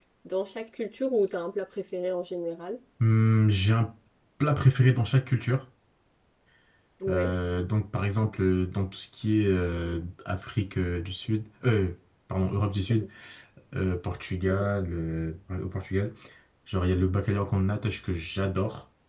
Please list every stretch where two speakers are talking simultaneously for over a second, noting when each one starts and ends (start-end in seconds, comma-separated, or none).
none